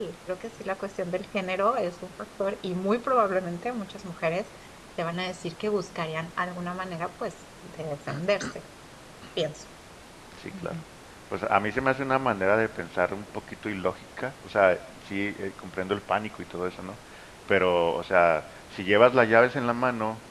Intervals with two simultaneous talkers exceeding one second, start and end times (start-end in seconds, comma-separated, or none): none